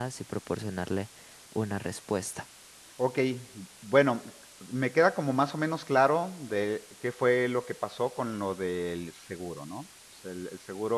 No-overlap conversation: Yes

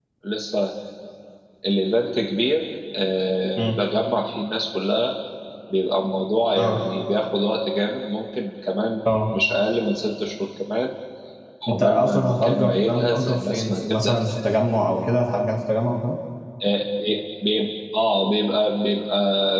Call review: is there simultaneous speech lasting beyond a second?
Yes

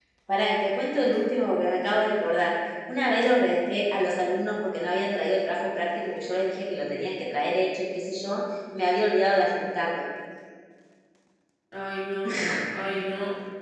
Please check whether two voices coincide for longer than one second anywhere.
No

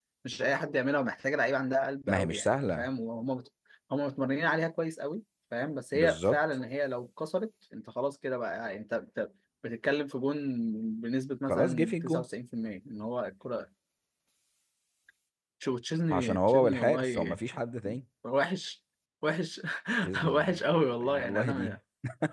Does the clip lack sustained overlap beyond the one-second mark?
No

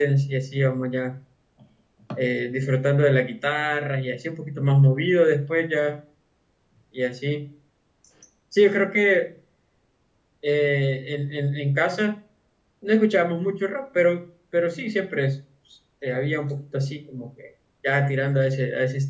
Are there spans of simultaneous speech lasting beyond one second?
No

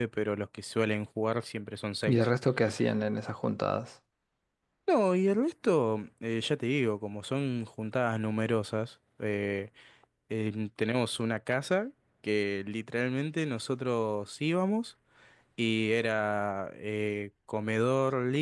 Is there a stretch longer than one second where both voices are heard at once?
No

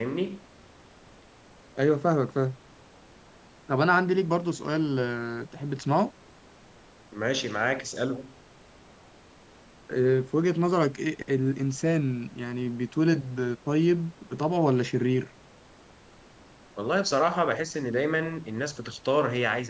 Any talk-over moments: No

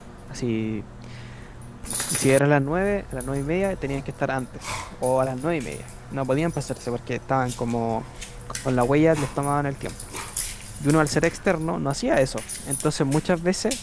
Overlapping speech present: No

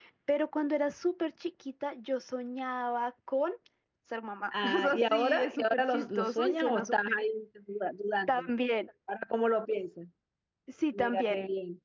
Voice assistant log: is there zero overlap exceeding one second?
No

